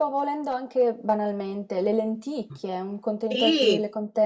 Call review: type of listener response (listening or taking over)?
taking over